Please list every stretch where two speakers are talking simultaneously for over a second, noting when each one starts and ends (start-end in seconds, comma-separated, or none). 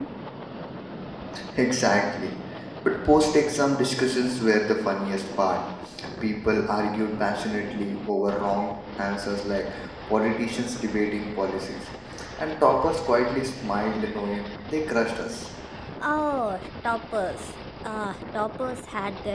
none